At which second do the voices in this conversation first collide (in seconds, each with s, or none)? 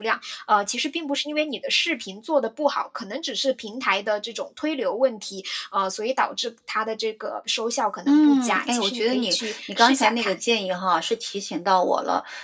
8.1 s